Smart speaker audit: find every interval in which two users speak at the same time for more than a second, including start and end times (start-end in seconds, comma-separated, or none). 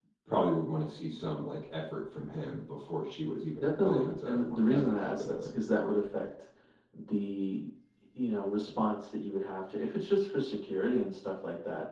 3.6-5.6